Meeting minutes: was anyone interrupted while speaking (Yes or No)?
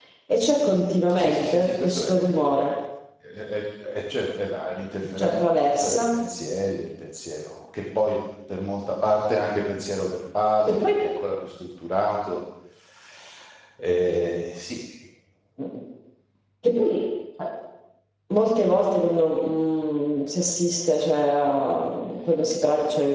Yes